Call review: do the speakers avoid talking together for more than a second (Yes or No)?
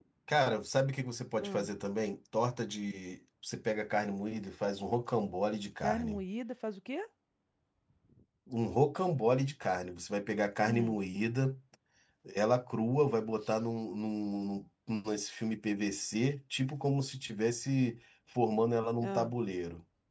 Yes